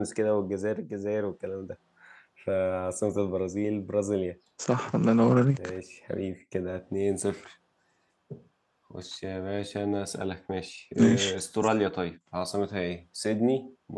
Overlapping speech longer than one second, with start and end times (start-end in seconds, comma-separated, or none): none